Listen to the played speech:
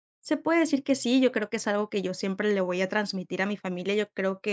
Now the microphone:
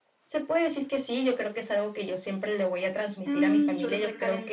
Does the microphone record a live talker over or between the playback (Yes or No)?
Yes